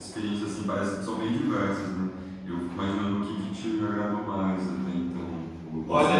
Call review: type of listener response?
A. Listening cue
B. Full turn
A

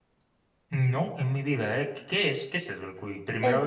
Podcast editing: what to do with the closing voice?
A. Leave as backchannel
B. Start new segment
B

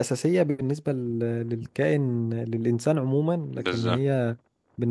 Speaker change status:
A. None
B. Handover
A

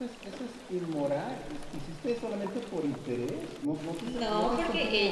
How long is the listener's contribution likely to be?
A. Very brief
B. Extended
B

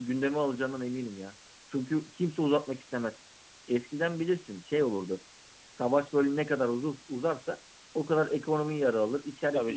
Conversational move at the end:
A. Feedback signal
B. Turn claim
A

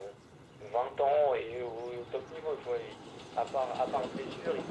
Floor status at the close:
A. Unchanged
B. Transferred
A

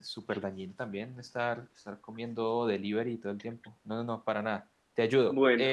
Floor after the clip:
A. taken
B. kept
A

